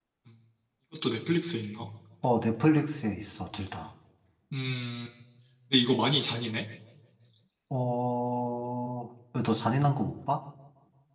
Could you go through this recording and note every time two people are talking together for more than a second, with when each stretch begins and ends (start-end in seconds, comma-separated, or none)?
none